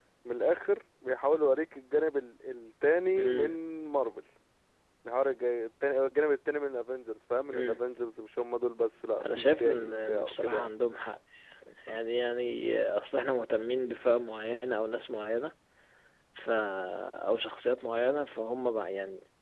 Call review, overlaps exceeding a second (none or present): present